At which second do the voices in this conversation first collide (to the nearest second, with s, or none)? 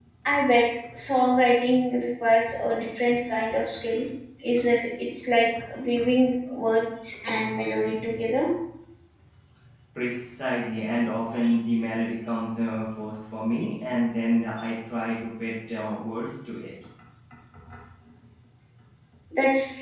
none